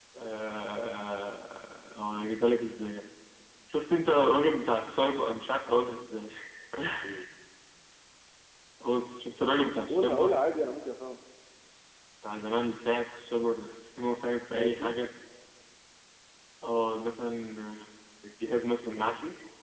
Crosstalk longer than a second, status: none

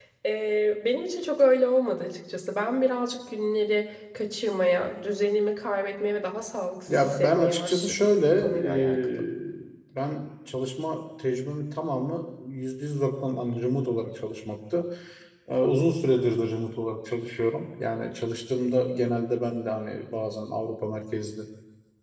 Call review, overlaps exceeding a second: present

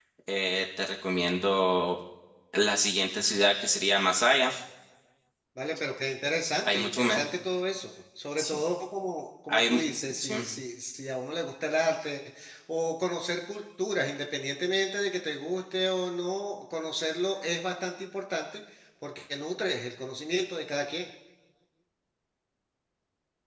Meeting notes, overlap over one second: none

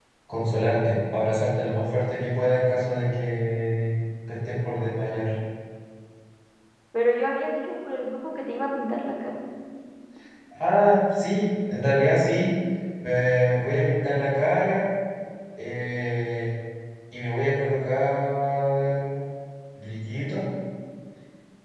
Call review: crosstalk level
none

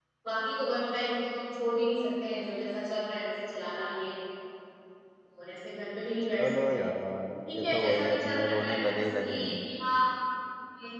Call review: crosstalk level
present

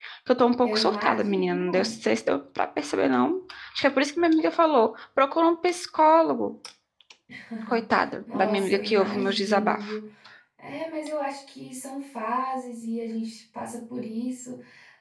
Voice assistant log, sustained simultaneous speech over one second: present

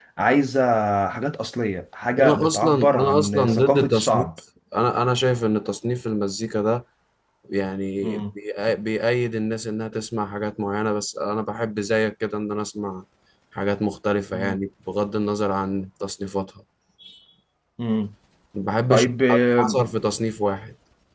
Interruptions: present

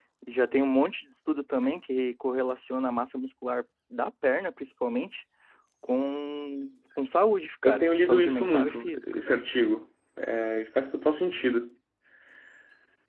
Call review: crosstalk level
present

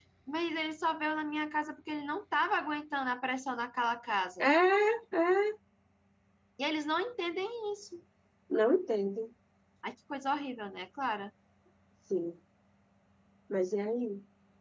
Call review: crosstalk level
none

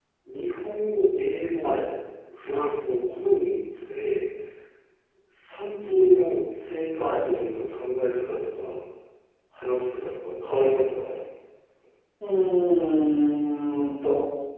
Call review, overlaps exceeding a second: none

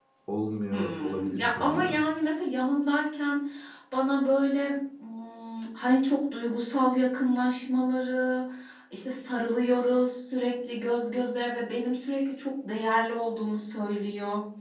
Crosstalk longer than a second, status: present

